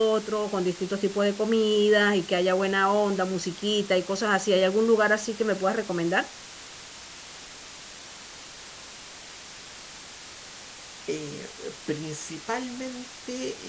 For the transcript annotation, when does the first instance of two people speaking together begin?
none

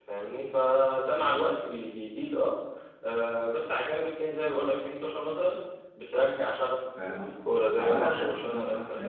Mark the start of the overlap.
7.0 s

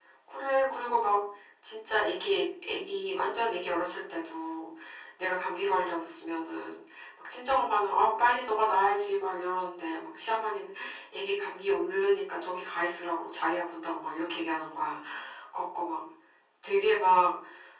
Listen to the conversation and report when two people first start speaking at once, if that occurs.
none

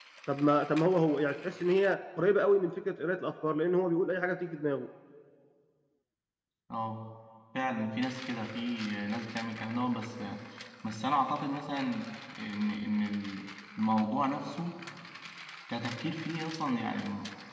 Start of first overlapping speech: none

